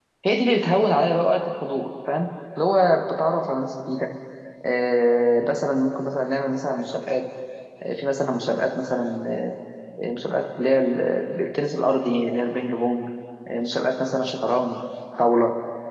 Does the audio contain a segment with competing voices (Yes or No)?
No